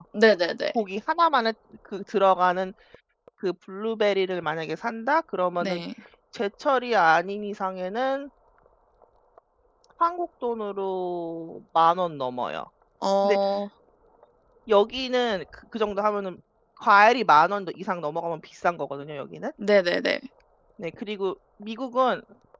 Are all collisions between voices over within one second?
Yes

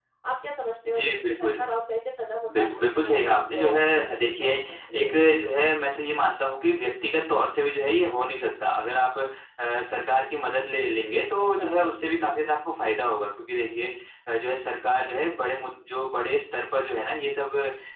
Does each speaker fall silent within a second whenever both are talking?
No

